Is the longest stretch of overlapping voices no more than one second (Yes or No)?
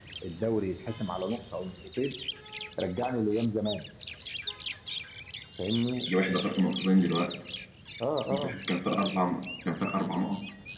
Yes